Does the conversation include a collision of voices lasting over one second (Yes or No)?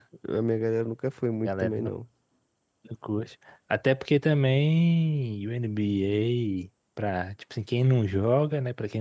No